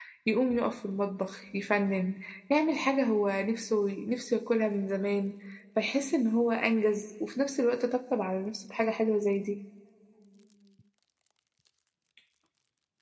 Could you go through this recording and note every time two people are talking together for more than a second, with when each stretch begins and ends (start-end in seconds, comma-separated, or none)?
none